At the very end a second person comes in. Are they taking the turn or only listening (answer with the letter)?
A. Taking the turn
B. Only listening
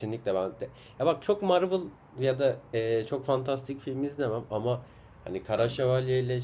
B